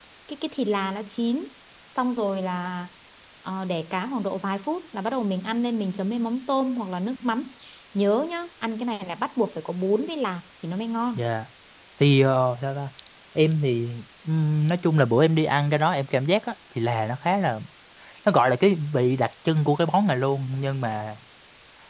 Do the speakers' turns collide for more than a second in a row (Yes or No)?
No